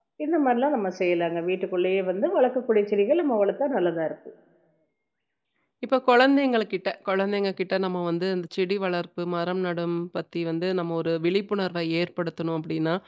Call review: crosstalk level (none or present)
none